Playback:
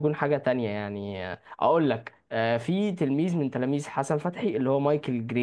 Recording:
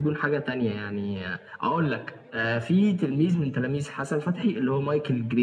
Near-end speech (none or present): none